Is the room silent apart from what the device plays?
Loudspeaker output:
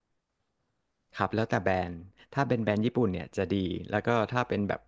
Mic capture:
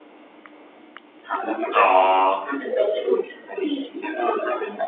No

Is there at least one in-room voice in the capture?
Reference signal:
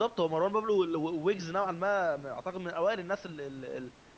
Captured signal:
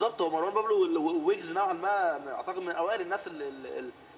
No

